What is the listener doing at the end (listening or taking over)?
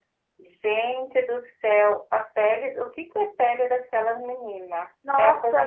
taking over